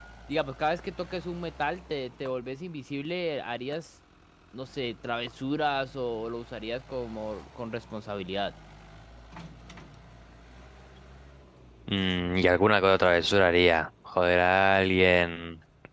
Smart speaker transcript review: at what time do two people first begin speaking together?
none

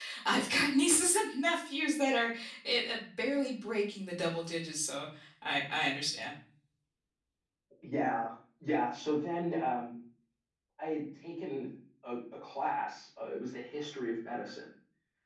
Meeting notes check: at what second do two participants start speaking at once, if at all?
none

